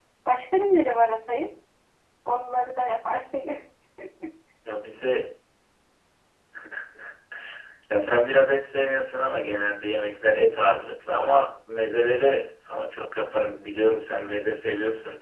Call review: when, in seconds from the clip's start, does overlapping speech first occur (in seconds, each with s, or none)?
none